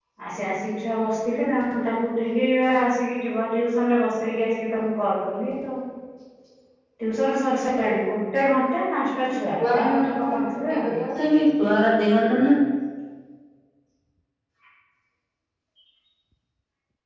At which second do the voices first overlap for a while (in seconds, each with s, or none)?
9.6 s